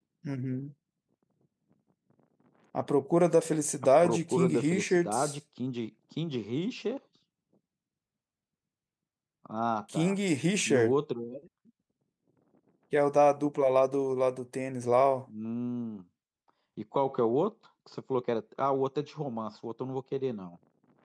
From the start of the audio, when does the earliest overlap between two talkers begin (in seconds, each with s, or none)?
4.0 s